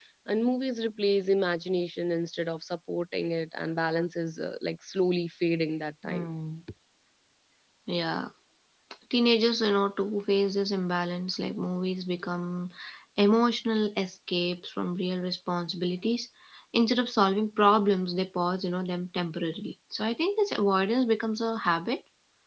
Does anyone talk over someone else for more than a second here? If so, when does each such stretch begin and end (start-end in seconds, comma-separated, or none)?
none